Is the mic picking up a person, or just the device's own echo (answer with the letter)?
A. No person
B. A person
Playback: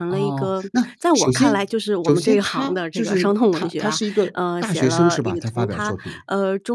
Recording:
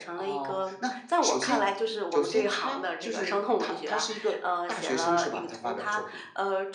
A